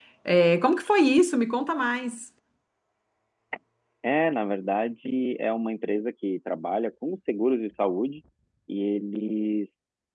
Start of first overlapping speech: none

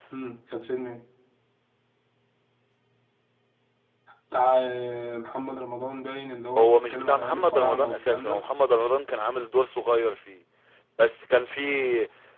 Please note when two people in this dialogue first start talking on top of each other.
7 s

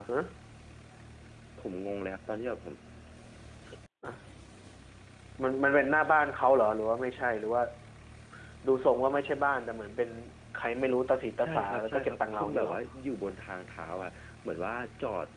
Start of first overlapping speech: 11 s

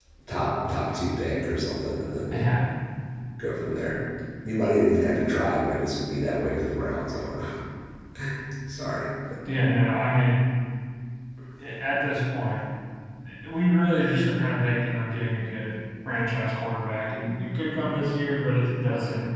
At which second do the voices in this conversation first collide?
none

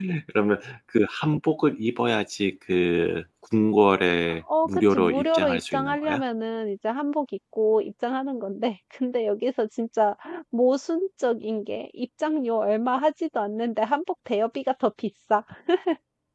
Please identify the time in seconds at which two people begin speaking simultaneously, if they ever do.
4 s

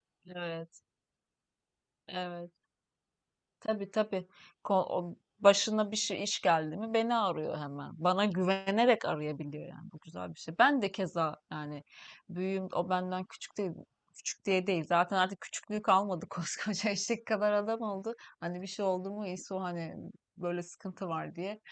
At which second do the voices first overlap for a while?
none

